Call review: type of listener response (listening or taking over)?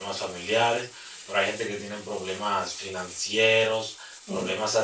listening